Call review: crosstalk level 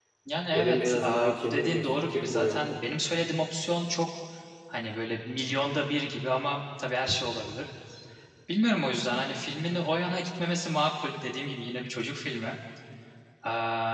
present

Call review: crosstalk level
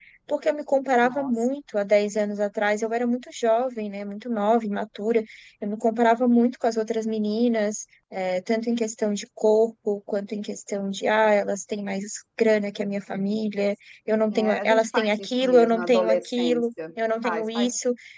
present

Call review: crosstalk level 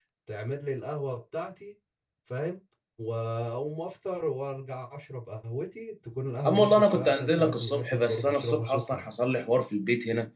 present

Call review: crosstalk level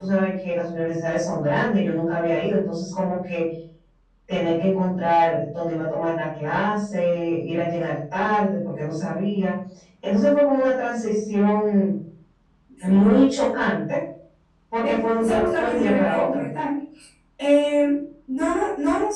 present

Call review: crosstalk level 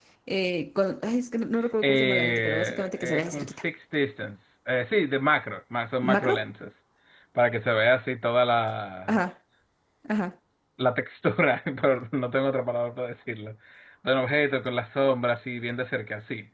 present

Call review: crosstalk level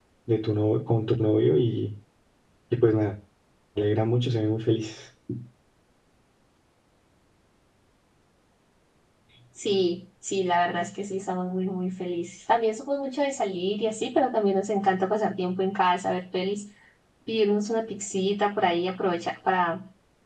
none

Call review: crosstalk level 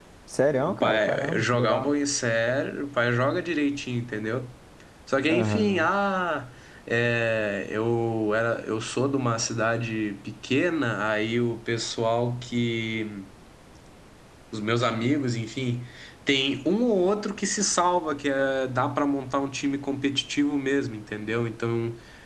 present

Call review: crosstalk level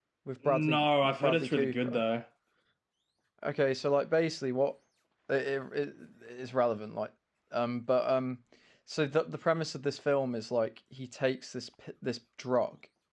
present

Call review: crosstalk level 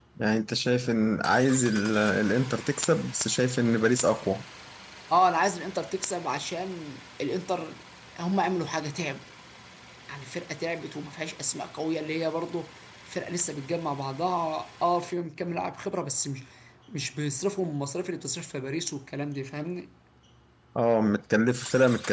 none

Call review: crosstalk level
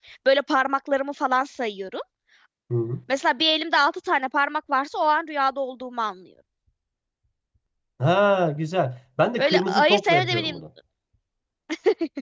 present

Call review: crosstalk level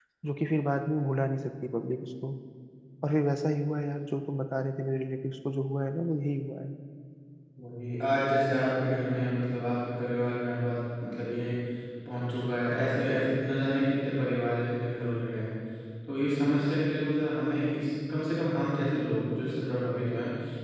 none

